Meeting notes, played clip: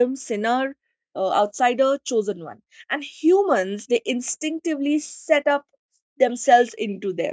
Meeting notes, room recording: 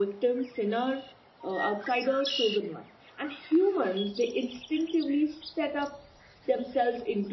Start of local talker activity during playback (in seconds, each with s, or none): none